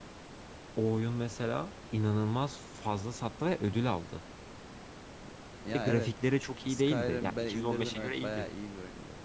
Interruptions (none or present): present